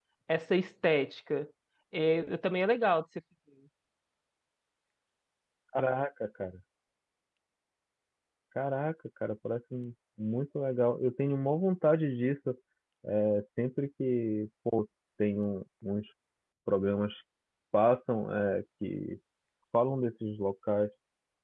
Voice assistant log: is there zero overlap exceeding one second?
Yes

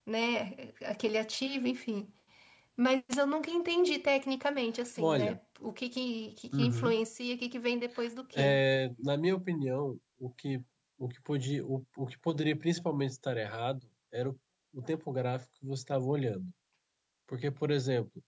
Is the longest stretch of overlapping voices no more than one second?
Yes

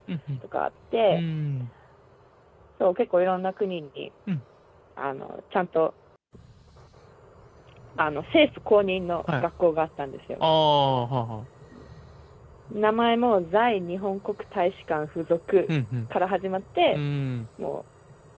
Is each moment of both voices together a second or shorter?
Yes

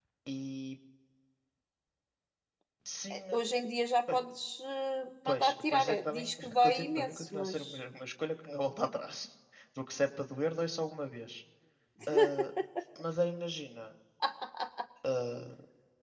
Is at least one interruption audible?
Yes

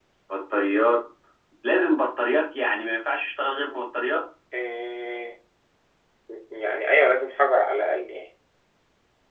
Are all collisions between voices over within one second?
Yes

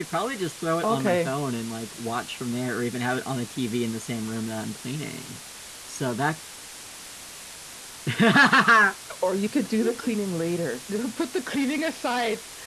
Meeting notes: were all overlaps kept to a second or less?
Yes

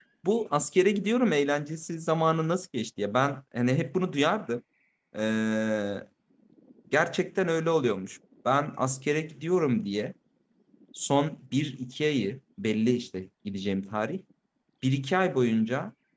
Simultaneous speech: No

